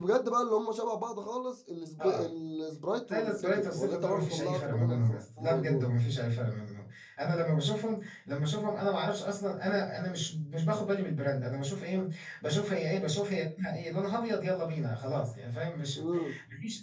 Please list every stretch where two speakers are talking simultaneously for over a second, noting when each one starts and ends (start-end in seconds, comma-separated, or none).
3.1-5.8